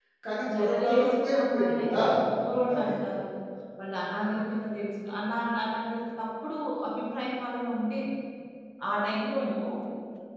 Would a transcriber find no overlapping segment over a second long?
No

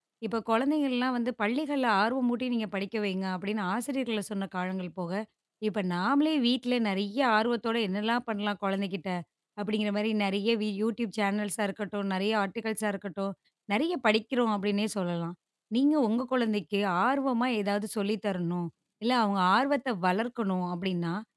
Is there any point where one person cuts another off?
No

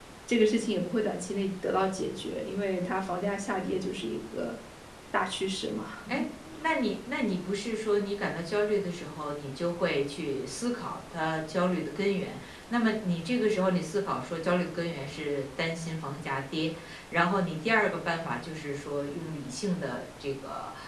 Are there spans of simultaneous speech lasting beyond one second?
No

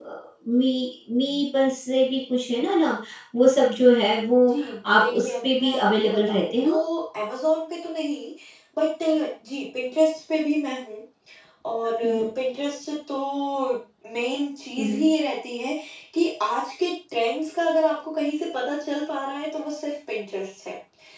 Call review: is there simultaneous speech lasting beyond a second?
Yes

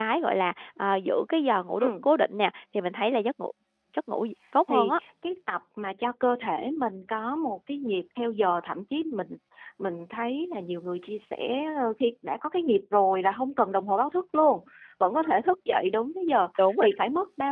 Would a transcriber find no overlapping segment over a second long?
Yes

